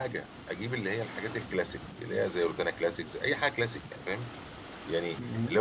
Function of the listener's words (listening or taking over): listening